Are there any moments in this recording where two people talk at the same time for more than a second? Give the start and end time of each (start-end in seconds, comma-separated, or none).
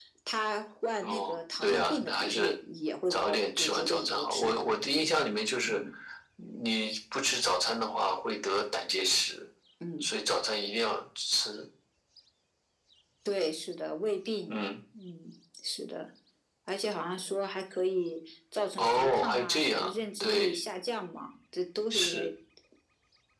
1.0-2.6, 3.1-4.7, 18.8-20.5